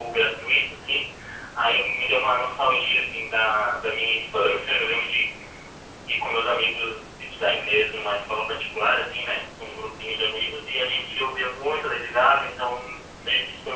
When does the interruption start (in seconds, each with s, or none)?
none